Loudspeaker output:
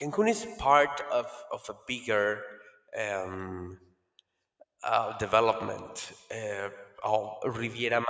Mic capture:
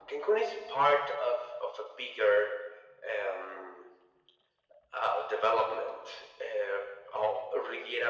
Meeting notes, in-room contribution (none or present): none